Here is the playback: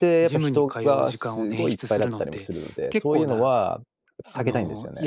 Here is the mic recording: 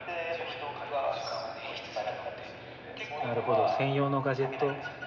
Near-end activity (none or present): present